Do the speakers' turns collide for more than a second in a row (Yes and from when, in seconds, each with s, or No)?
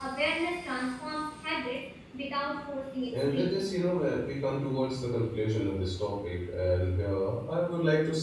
No